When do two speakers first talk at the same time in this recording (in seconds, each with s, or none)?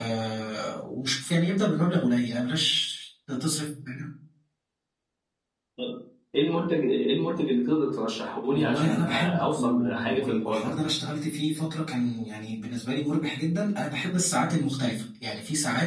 8.5 s